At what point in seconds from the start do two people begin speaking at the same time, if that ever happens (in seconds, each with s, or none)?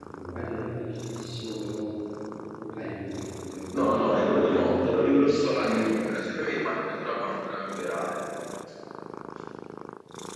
3.7 s